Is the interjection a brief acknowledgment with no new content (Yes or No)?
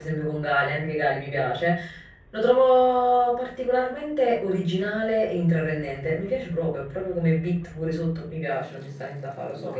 No